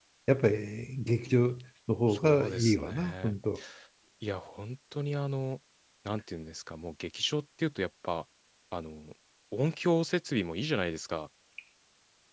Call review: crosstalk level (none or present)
present